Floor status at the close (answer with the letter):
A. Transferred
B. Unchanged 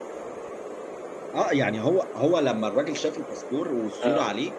B